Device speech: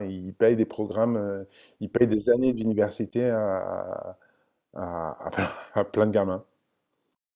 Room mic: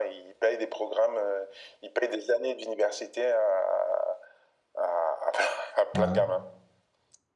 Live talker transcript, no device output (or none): ouais,